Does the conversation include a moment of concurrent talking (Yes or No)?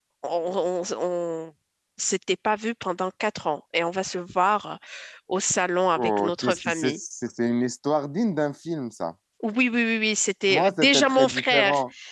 Yes